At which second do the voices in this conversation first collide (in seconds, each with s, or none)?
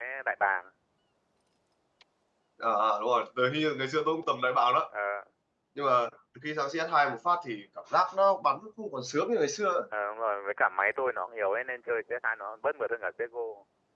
none